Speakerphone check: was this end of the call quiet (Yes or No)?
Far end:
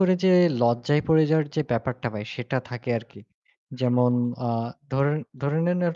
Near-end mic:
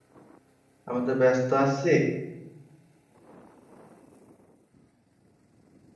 No